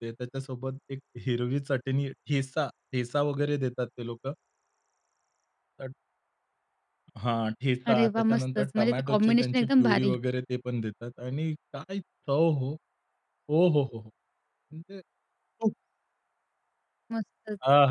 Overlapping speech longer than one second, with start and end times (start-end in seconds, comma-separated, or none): 7.9-10.1